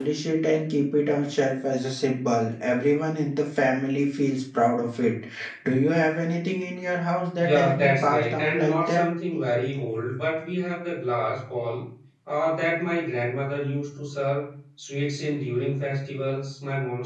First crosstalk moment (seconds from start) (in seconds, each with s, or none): 7.4 s